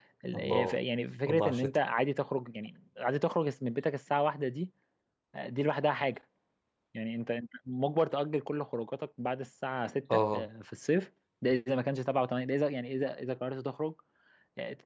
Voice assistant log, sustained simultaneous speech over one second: none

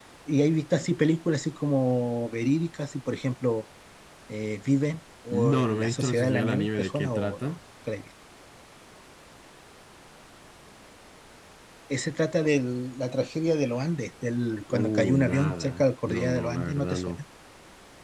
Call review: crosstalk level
present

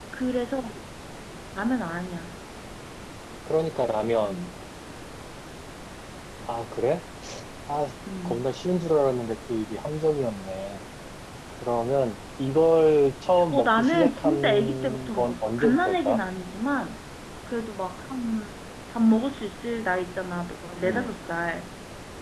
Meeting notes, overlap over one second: present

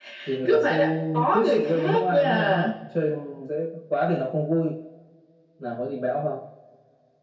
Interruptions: present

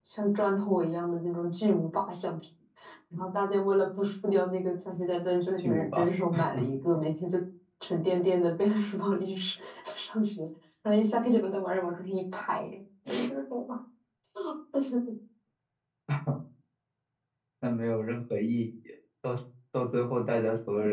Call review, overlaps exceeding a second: none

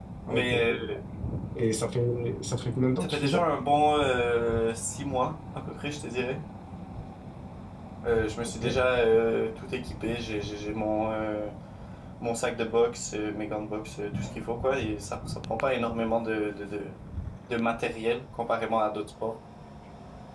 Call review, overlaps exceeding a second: none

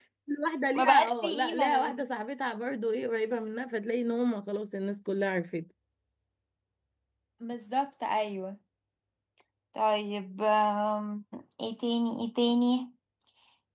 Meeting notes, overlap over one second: present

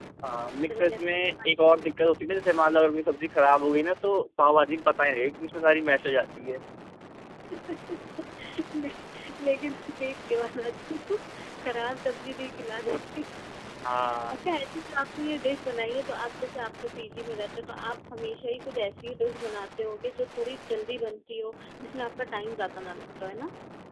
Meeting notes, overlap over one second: present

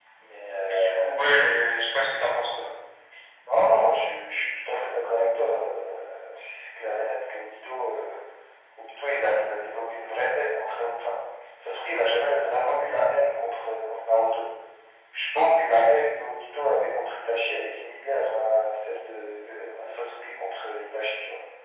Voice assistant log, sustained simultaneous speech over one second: none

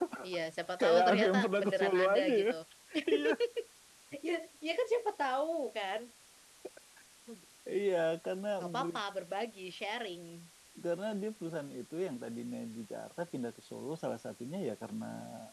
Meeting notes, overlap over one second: present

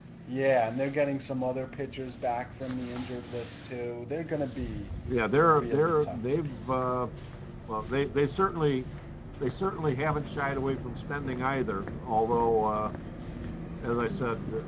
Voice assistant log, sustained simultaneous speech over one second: present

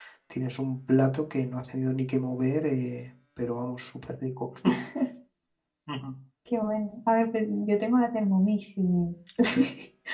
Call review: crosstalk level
none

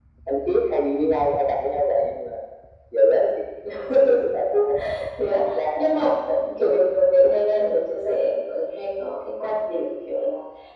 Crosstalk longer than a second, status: none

